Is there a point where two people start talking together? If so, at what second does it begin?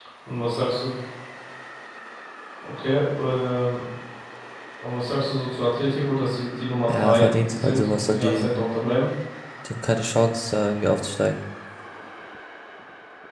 6.9 s

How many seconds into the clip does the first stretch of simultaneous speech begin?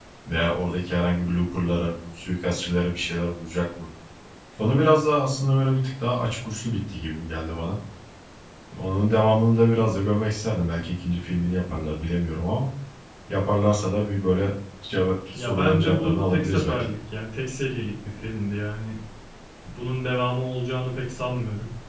15.3 s

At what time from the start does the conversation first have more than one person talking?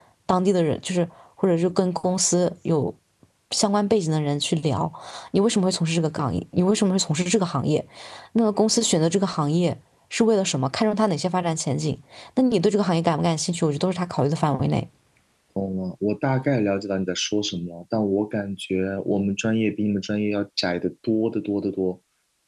none

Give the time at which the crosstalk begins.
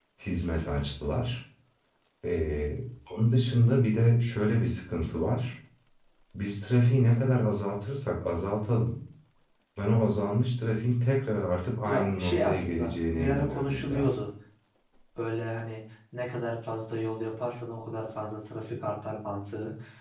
11.8 s

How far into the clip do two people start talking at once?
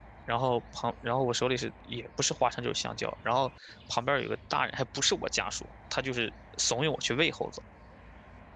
none

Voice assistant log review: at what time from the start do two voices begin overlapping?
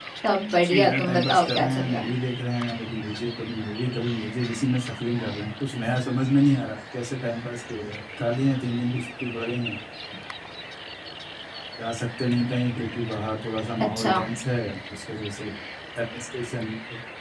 0.6 s

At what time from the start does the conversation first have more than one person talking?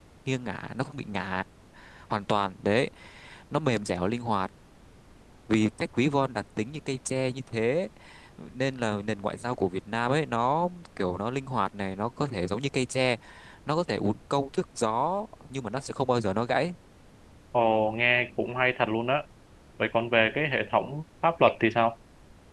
none

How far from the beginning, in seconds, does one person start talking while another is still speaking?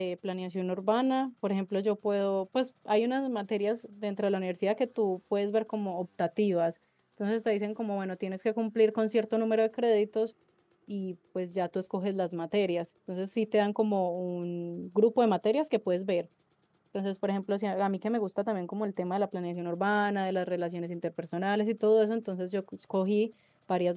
none

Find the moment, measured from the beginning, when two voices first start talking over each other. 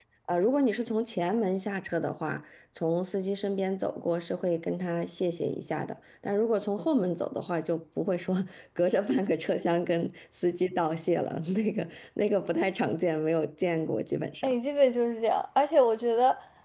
none

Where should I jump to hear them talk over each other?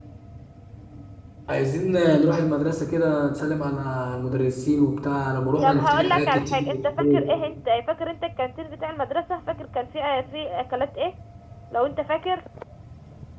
5.6 s

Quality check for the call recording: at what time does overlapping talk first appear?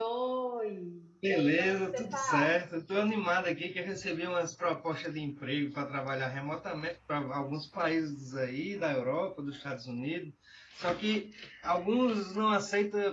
1.3 s

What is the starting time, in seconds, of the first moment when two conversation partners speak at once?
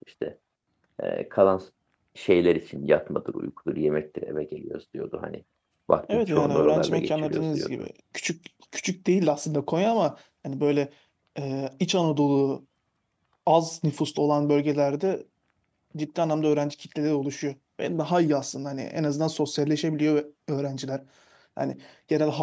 6.1 s

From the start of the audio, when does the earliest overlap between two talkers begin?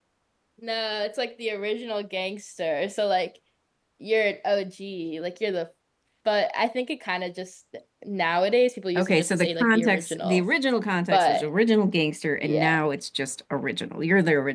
8.9 s

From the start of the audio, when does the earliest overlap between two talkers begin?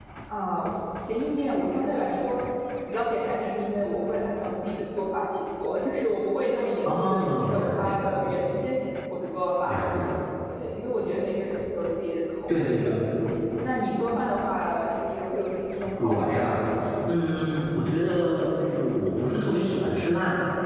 6.8 s

